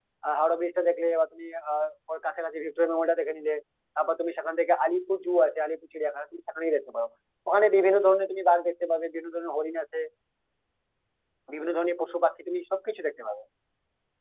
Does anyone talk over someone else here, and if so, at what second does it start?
none

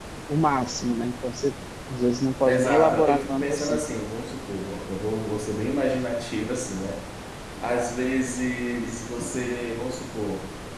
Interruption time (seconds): 2.5 s

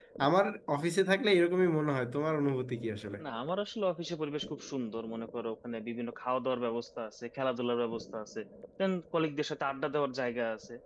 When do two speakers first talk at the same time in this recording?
none

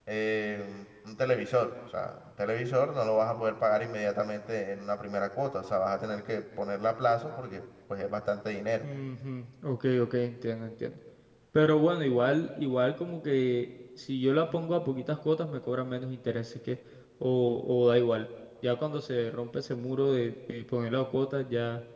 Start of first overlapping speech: none

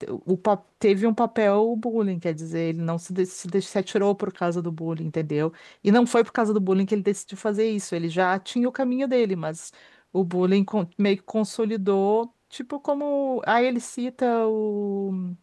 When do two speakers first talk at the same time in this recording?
none

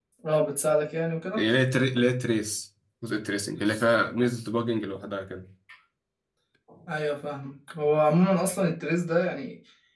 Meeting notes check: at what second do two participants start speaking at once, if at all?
none

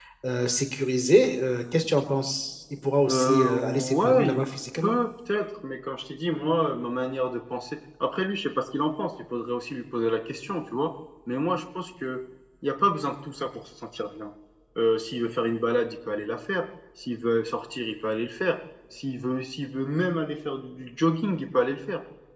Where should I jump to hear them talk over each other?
3.1 s

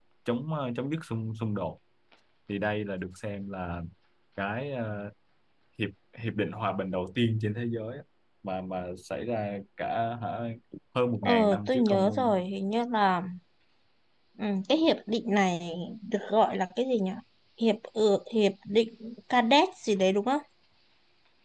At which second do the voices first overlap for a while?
11.2 s

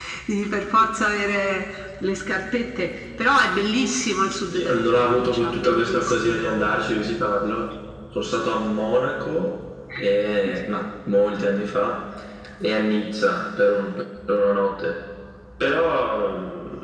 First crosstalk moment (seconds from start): 4.5 s

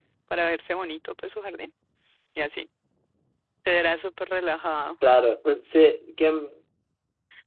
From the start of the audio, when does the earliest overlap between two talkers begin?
none

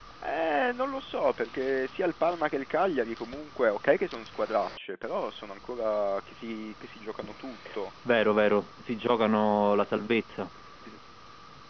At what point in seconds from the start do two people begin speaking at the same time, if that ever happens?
none

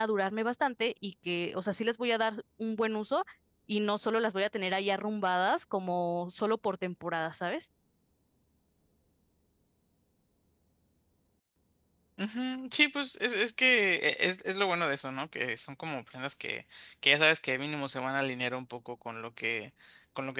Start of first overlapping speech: none

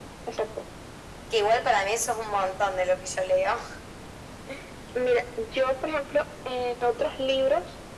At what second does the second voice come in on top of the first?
none

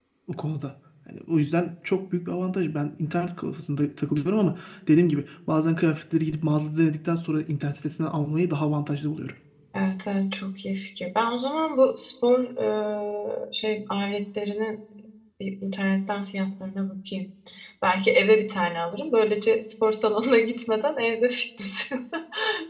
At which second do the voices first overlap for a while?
none

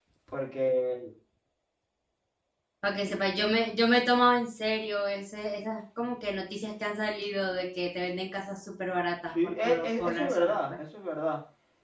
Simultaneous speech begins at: 9.3 s

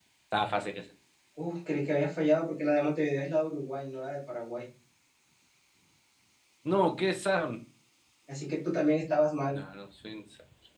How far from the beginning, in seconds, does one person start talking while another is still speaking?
none

